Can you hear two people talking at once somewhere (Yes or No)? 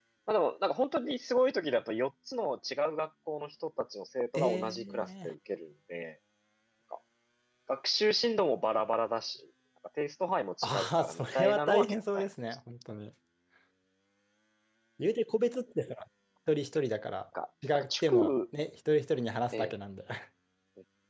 Yes